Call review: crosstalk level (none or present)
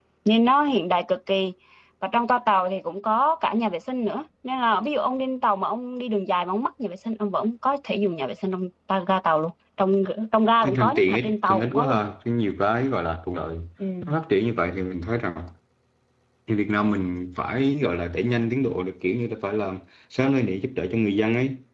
present